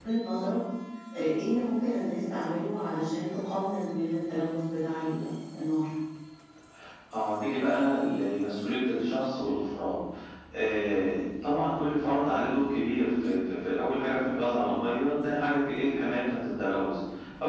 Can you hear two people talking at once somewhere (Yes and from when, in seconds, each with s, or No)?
No